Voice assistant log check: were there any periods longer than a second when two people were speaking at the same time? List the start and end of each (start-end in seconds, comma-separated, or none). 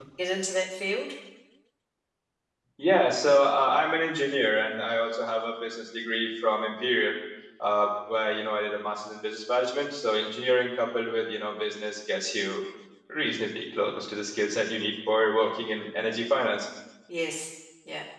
none